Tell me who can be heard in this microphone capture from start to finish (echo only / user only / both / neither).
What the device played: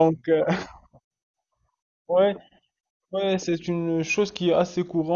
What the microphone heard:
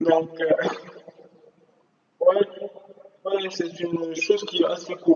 echo only